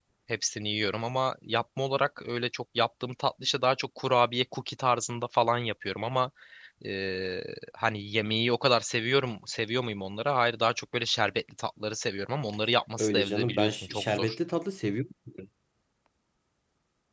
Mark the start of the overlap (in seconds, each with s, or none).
13.0 s